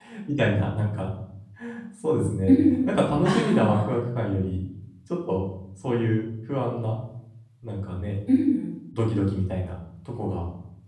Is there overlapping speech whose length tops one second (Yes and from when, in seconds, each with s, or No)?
Yes, from 2.5 s